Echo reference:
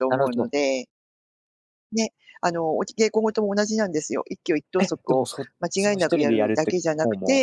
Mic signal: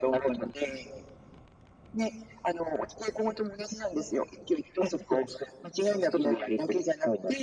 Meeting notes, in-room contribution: none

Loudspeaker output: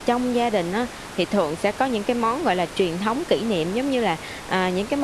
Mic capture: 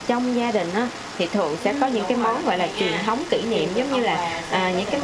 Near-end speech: present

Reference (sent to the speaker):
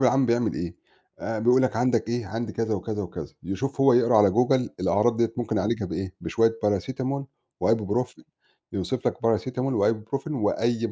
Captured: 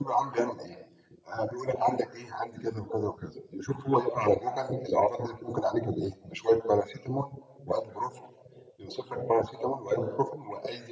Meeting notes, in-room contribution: none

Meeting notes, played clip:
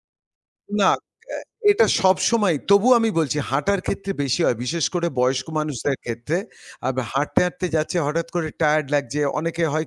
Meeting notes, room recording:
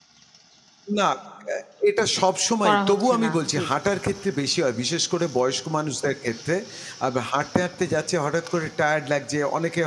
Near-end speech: present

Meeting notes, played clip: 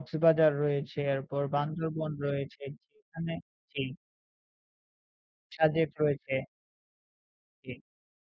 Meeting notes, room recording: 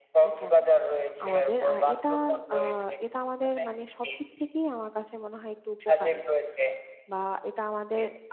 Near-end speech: present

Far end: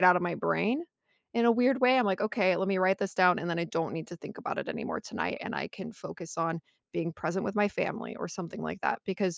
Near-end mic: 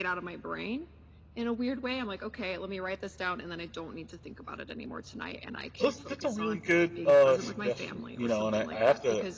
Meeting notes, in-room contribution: present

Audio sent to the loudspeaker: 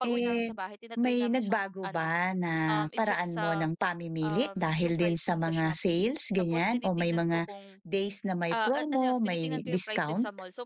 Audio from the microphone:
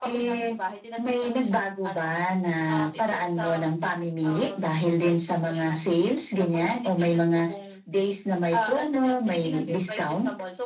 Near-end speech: none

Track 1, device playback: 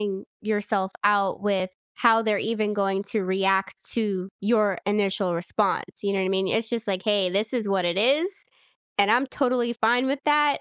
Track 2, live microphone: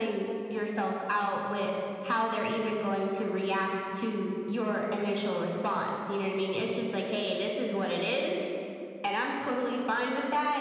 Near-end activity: none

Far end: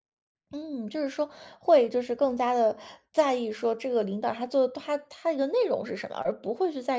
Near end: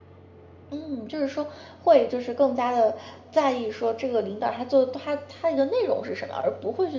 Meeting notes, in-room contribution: none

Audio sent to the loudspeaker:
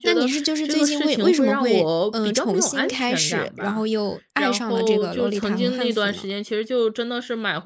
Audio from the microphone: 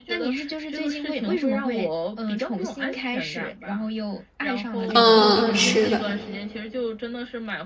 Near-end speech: present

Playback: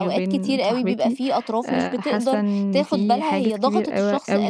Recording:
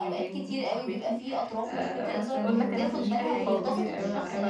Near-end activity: present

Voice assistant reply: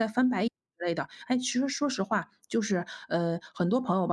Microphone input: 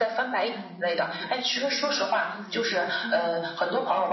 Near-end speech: present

